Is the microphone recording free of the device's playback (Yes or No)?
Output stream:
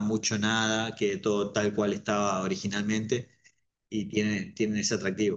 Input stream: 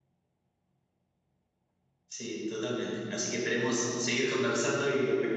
Yes